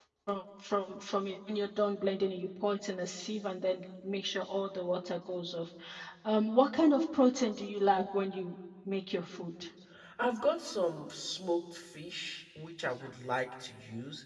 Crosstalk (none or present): none